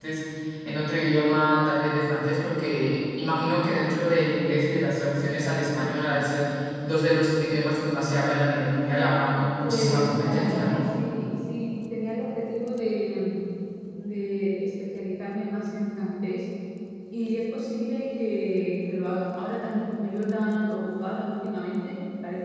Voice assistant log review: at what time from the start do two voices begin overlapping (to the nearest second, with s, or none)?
10 s